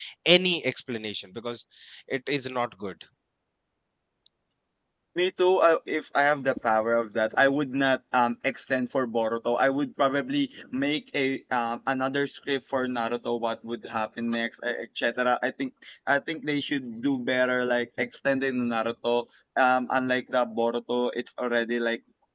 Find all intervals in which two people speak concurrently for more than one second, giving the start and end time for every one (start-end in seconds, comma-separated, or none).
none